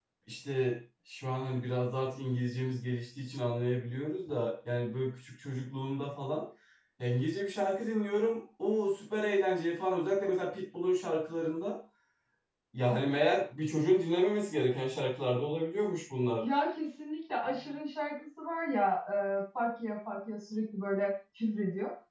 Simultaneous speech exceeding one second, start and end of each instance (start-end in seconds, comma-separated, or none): none